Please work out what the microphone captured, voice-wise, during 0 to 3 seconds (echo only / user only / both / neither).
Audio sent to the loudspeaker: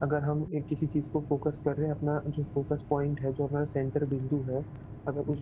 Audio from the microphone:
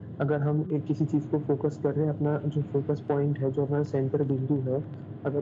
echo only